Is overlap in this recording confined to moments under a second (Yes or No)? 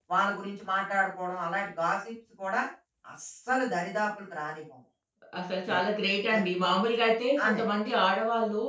Yes